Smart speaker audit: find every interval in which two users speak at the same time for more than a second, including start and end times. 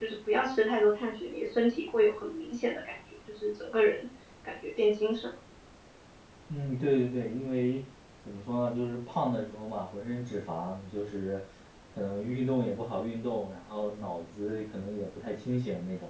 none

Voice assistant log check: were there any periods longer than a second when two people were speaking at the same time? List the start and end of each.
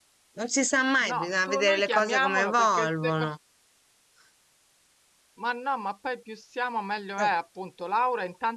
1.1-3.3

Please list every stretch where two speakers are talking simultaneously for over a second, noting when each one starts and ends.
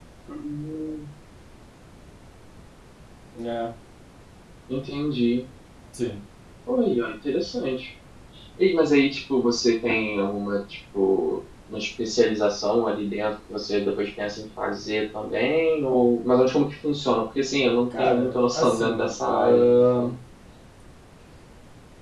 17.9-20.1

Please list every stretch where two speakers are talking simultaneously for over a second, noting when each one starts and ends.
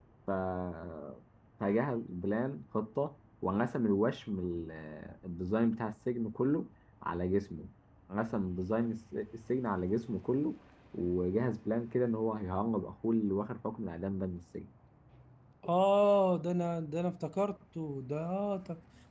none

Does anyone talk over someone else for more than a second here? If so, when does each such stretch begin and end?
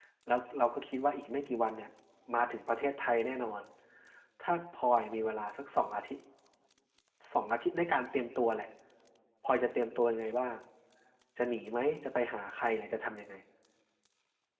none

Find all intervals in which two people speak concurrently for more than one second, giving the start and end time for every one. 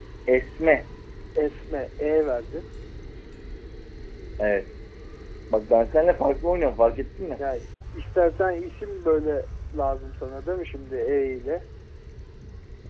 none

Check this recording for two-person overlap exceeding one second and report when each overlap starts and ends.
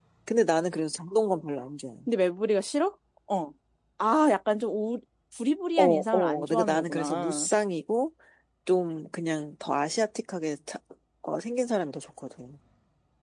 5.8-7.5

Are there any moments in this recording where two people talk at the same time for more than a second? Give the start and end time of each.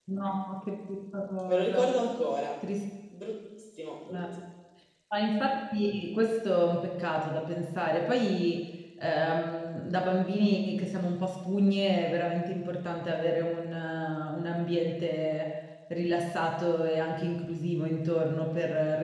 none

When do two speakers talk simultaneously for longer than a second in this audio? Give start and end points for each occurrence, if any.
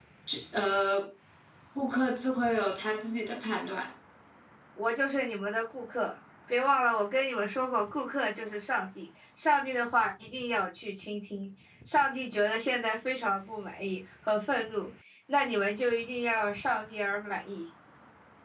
none

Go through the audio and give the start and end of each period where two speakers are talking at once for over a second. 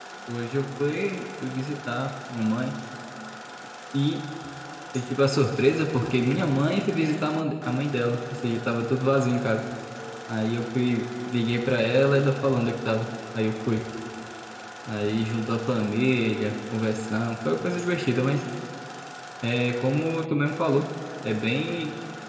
none

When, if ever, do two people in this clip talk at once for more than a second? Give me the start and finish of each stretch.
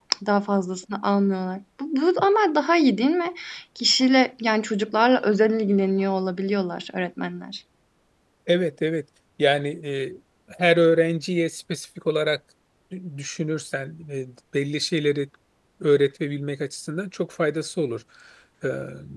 none

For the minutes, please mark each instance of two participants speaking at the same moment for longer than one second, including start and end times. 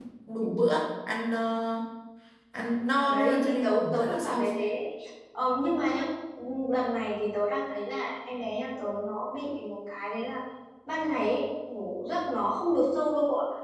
3.1-4.4

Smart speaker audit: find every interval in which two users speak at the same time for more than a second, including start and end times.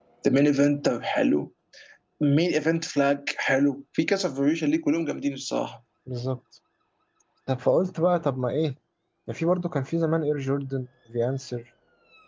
none

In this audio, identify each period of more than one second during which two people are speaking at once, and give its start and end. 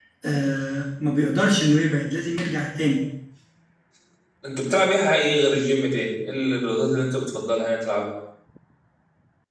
none

